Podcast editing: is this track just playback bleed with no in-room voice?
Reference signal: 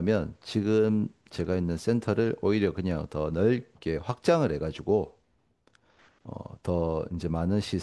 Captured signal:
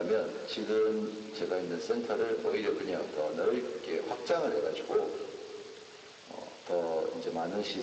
Yes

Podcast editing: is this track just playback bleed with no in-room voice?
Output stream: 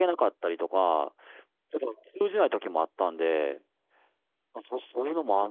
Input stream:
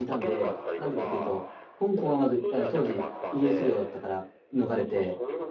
No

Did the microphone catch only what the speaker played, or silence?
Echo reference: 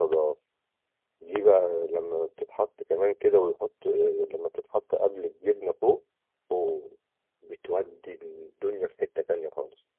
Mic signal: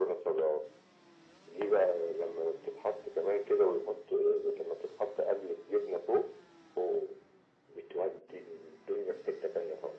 Yes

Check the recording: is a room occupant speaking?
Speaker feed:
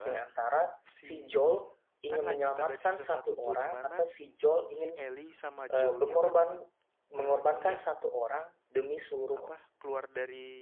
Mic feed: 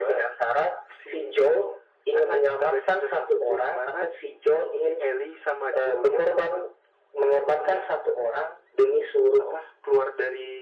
No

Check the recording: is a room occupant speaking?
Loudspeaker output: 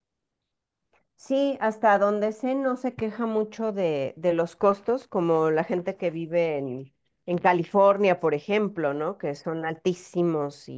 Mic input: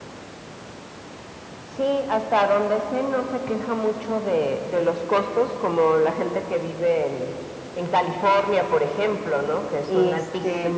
Yes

